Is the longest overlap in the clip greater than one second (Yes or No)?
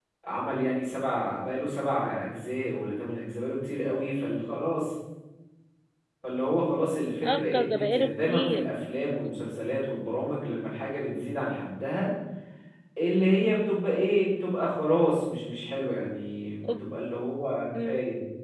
Yes